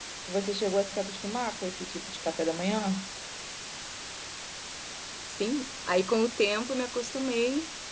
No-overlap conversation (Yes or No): Yes